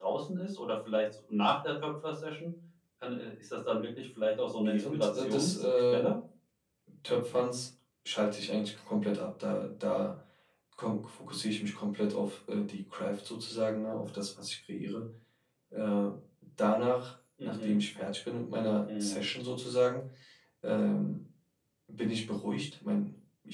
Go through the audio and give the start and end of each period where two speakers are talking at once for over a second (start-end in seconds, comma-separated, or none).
4.6-6.0